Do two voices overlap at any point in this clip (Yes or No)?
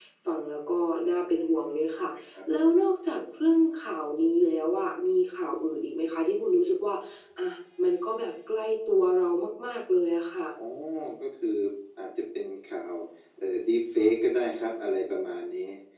No